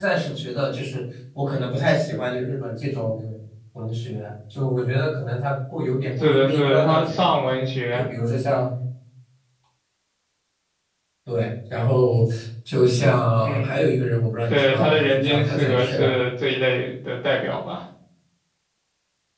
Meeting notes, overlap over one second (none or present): present